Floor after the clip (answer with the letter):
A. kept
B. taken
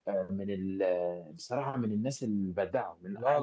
B